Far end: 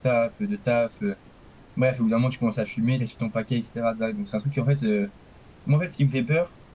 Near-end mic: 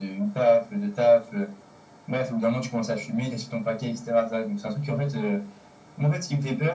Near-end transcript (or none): none